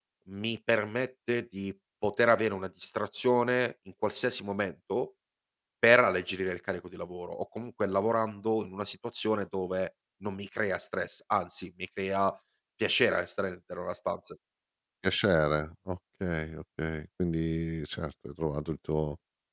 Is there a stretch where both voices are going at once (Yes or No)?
No